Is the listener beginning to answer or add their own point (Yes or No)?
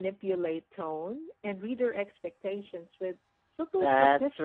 Yes